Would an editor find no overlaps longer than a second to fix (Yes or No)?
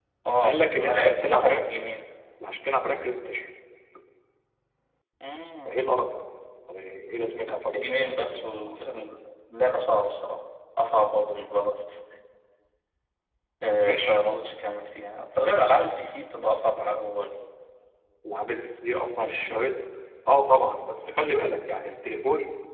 No